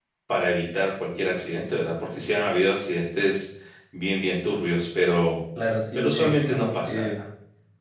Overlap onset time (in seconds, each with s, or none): 6.0 s